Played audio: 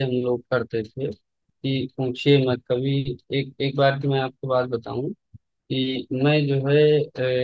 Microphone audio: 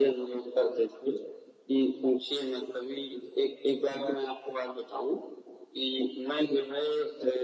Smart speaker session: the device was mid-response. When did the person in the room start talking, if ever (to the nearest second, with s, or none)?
none